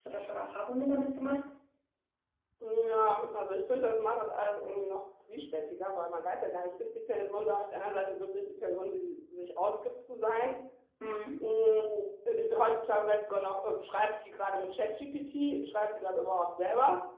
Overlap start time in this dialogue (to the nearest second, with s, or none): none